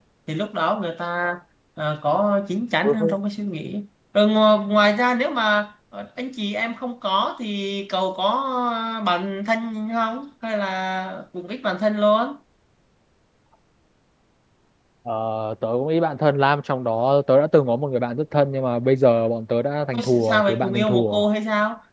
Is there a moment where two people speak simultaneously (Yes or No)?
Yes